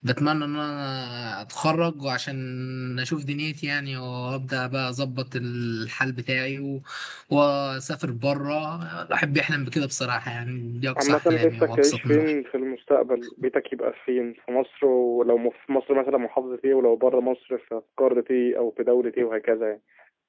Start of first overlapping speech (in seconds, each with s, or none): 11.0 s